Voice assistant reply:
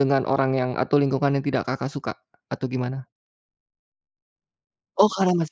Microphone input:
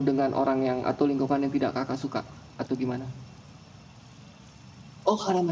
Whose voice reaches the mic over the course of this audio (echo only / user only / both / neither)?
echo only